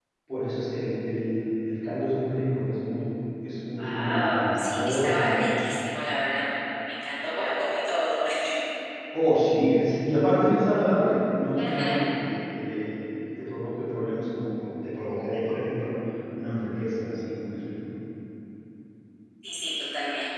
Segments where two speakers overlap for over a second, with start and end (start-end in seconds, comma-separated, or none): 3.8-5.5